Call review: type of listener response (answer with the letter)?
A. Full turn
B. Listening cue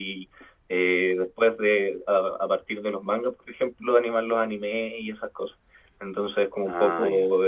B